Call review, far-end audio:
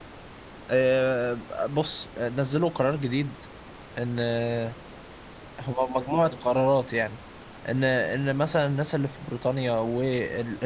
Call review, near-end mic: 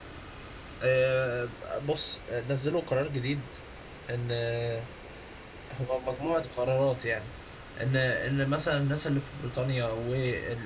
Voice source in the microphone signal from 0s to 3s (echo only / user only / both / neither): echo only